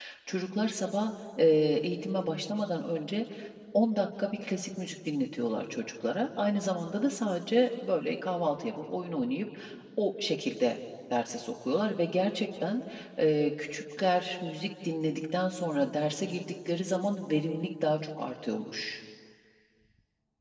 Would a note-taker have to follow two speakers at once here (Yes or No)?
No